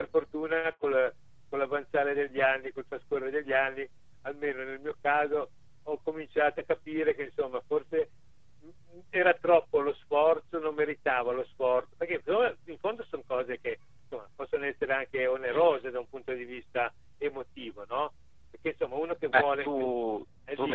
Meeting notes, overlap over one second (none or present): none